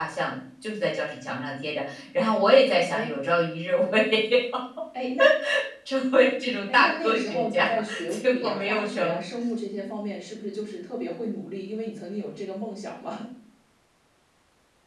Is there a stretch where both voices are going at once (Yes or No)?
Yes